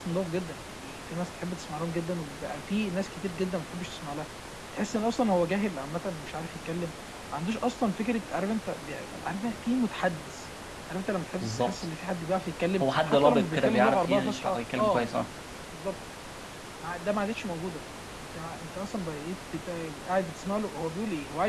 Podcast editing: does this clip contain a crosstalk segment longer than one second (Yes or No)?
Yes